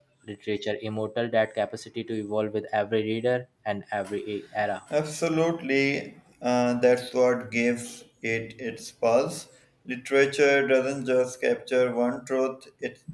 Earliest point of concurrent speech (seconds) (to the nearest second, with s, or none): none